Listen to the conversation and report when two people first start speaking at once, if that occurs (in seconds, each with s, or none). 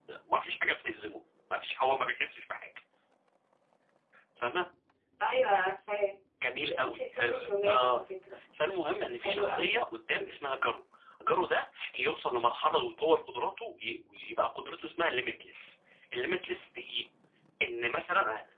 6.6 s